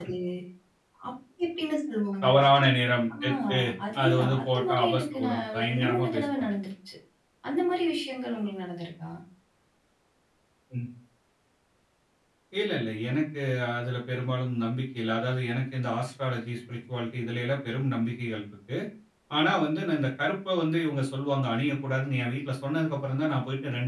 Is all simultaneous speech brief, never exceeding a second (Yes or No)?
No